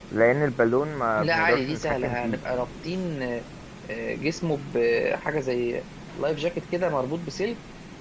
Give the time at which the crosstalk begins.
1 s

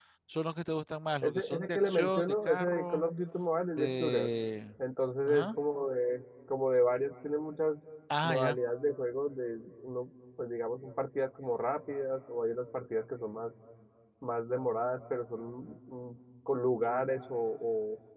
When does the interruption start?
1 s

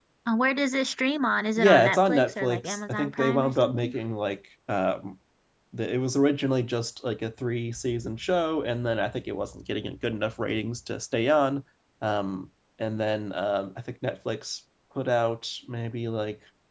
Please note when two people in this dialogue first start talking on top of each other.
2 s

